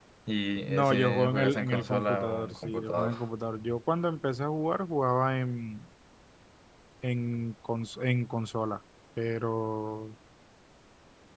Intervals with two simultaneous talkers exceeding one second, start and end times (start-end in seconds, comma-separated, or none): 0.7-3.1